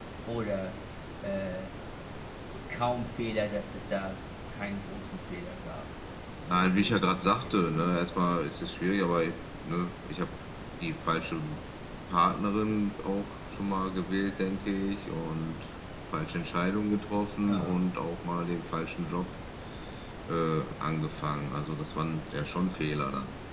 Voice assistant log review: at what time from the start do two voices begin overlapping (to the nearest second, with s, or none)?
7 s